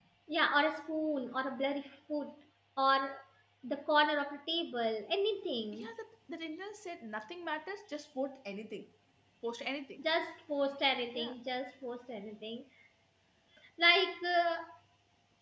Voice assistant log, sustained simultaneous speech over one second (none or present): none